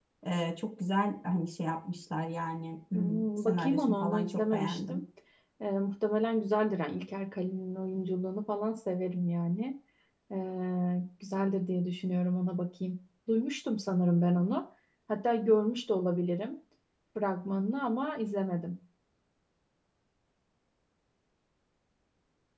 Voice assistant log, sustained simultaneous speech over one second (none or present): present